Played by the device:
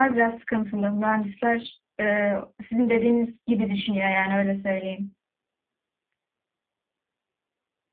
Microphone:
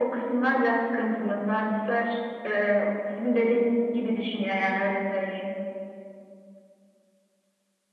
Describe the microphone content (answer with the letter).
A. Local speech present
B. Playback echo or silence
B